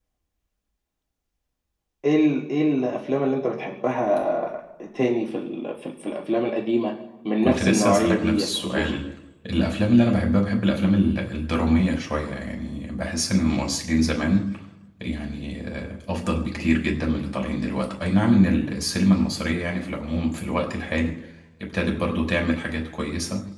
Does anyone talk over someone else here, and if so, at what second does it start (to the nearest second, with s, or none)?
7 s